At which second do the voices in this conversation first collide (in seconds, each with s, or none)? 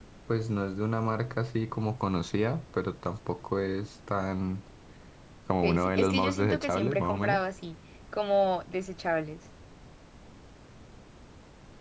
5.6 s